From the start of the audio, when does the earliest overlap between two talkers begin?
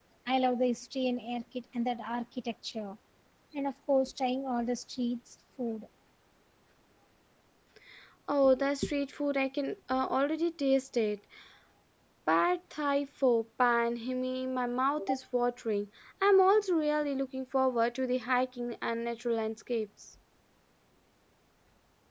none

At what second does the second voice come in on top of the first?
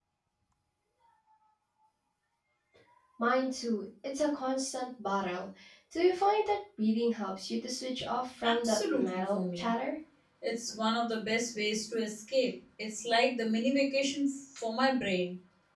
8 s

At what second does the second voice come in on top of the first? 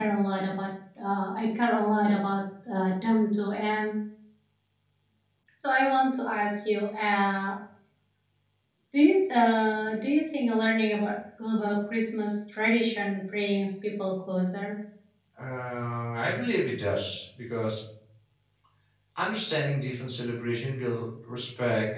none

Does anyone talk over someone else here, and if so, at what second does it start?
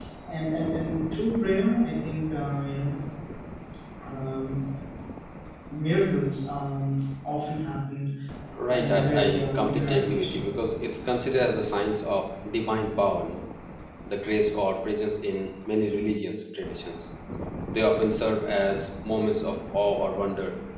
9 s

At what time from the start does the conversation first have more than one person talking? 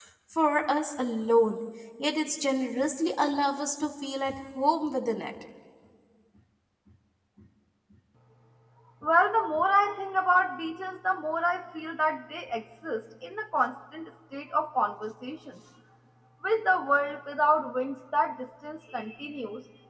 none

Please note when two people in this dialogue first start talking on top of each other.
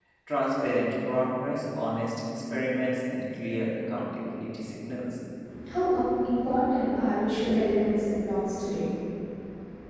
none

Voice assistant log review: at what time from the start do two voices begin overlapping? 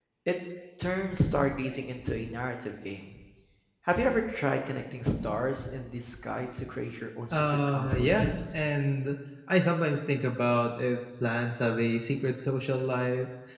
7 s

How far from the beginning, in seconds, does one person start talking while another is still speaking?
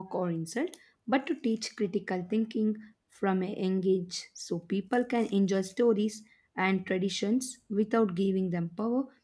none

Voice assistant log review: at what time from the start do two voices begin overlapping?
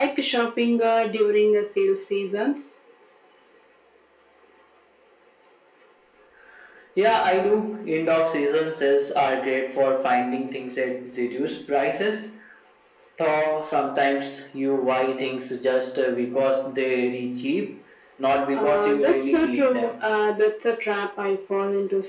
19 s

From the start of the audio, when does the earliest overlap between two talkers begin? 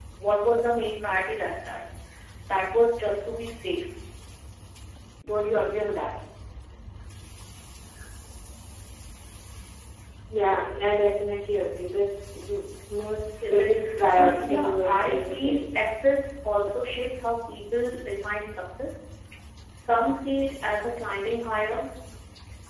13 s

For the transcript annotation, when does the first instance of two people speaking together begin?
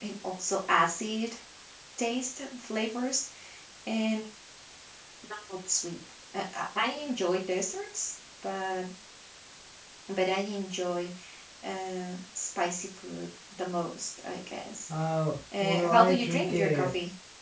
16 s

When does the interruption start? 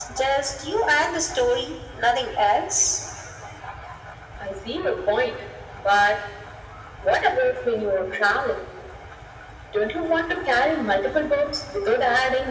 none

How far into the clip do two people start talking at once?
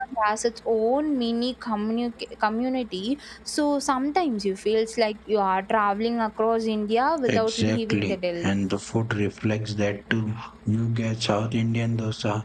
7 s

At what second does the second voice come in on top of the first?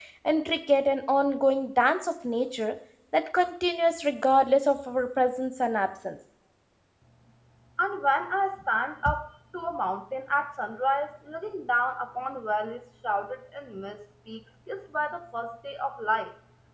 none

